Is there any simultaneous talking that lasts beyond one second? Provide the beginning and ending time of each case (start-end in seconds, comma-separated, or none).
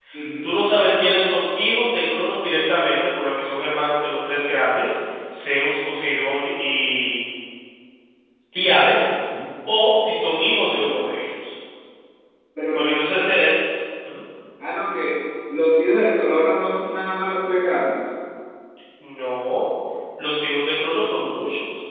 none